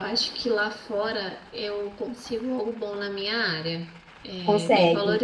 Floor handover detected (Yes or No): No